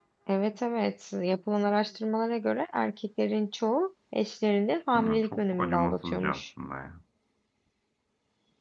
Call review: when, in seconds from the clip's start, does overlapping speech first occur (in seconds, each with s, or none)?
5.0 s